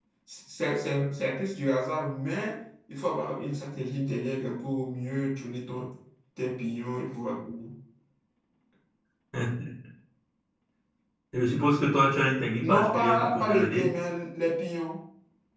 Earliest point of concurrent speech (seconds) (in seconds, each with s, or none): 12.6 s